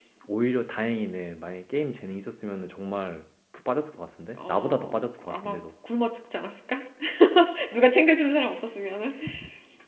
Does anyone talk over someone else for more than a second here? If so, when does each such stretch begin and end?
4.3-5.6

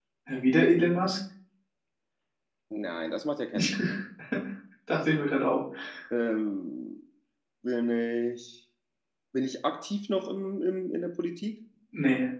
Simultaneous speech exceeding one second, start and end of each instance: none

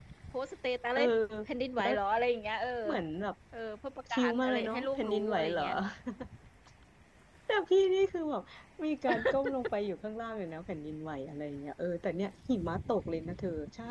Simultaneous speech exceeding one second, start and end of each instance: 4.1-5.6

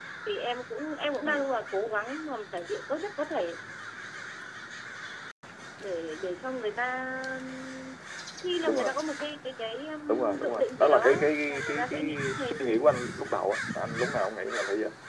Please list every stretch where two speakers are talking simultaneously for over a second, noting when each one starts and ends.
10.1-12.5

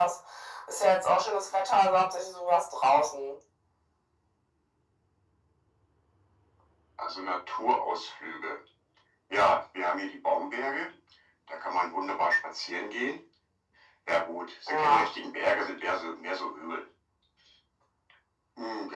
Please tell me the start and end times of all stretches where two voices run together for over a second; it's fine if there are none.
none

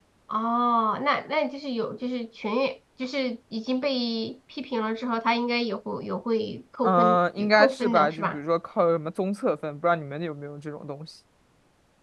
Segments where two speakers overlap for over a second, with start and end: 6.8-8.4

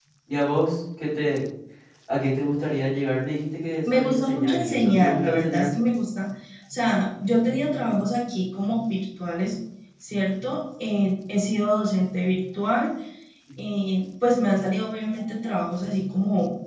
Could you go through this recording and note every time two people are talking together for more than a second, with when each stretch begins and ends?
3.9-5.7

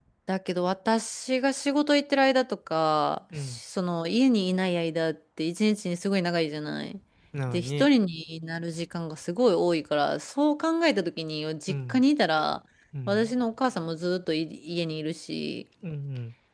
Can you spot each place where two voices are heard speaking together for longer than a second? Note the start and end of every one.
none

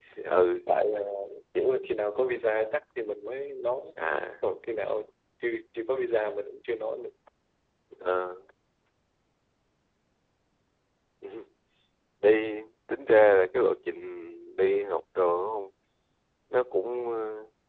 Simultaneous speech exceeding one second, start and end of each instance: none

